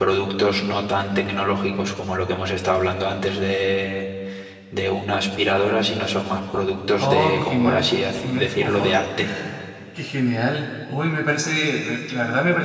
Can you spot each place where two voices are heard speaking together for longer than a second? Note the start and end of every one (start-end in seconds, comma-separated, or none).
7.0-8.9